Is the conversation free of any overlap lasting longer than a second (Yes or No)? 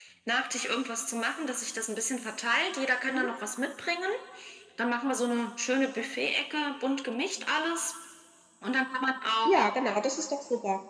Yes